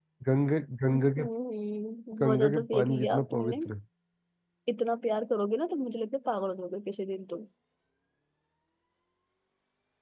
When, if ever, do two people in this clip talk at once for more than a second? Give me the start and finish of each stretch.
2.2-3.6

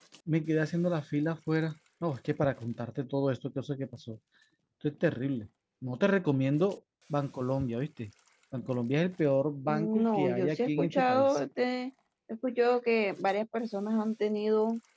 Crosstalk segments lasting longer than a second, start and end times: 9.7-11.4

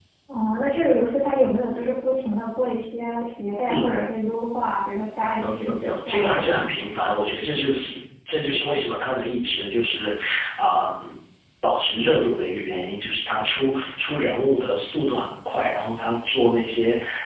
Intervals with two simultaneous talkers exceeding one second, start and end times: 5.4-6.7

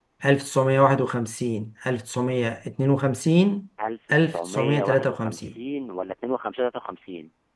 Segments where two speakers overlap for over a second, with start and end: 4.1-5.5

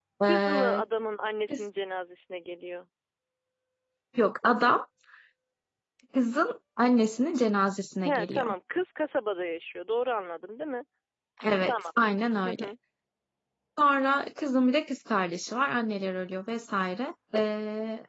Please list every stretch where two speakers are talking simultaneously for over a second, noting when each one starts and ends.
none

